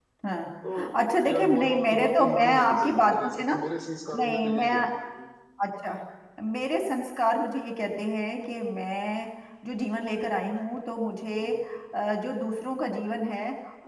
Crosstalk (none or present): present